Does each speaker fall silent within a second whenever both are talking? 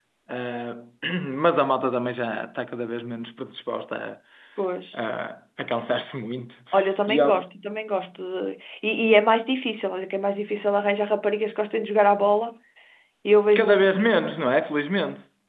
Yes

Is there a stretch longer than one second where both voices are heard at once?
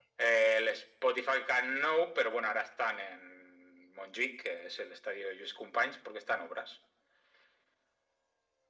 No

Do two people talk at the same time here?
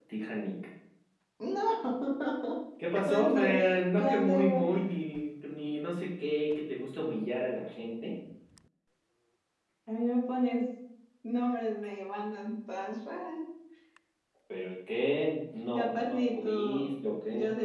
Yes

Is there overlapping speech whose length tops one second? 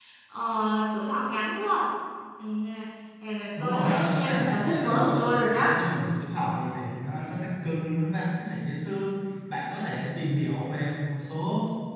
Yes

